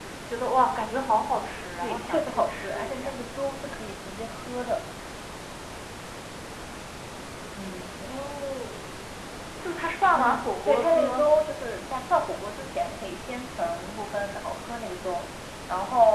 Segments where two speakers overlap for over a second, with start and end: 1.8-3.1, 10.1-11.3

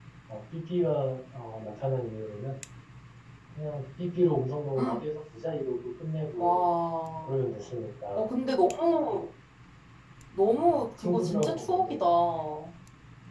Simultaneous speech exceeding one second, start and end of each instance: 10.7-12.0

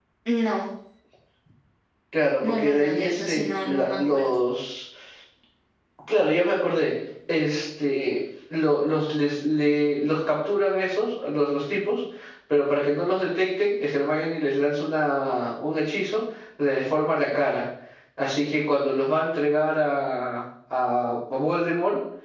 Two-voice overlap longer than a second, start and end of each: 2.4-4.3

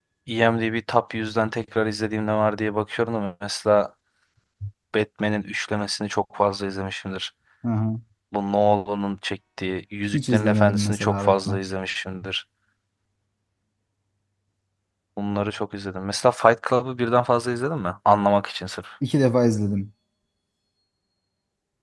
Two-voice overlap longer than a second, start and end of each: 10.1-11.6

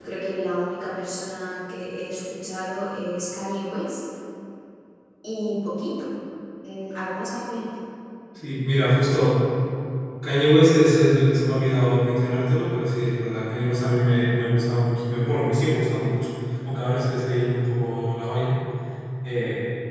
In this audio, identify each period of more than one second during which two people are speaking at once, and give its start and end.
none

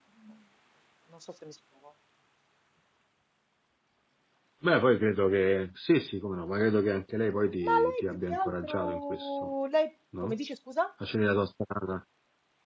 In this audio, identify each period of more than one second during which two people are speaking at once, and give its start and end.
7.6-9.5

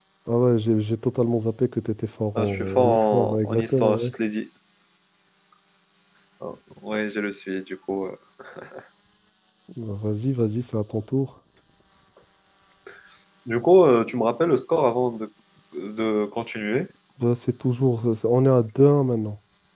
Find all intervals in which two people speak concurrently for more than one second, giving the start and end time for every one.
2.4-4.1

